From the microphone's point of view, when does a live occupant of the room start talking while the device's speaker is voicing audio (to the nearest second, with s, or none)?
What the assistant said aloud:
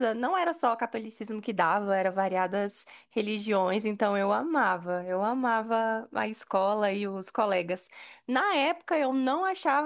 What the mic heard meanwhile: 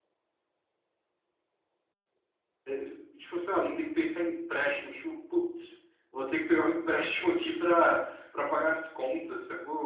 3 s